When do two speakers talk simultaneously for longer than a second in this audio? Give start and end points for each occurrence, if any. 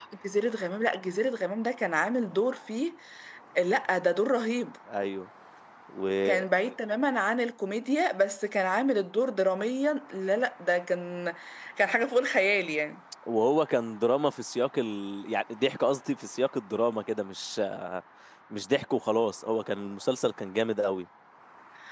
none

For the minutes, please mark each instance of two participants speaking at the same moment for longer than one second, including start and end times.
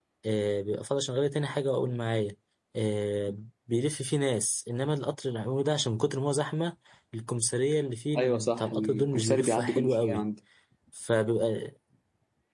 8.2-10.2

